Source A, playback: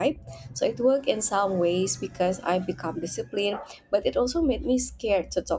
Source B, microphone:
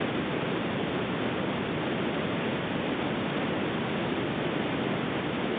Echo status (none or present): none